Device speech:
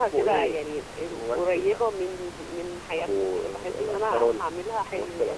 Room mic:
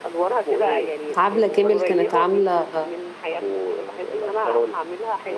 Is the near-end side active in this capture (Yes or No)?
Yes